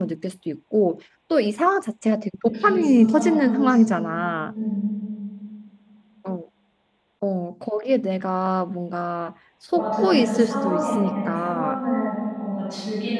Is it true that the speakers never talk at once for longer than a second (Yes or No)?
No